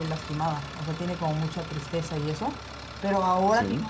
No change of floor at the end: Yes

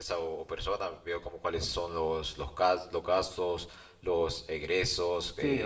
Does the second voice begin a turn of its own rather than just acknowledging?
Yes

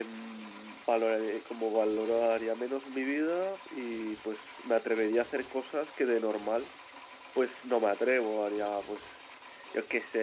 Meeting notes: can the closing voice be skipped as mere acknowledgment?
Yes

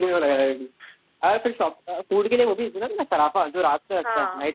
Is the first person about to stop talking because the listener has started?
Yes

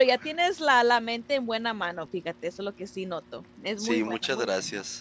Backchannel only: No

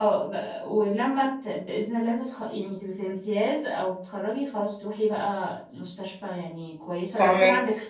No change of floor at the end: Yes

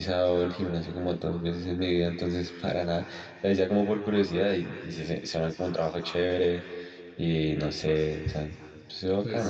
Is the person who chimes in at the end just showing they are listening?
No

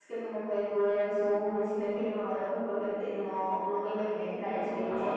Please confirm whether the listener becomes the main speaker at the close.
Yes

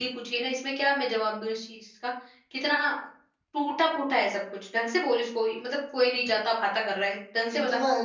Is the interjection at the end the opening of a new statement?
Yes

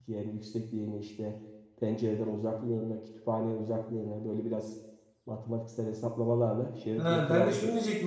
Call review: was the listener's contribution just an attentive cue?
No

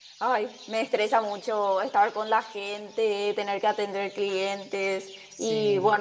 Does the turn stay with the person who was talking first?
Yes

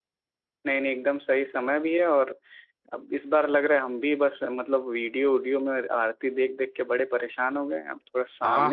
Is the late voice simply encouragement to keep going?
No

